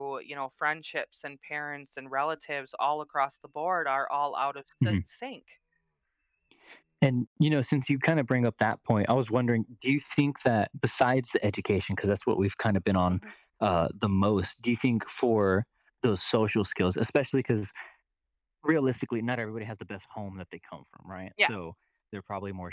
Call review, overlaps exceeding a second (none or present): none